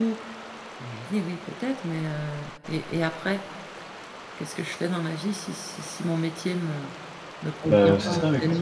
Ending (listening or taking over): taking over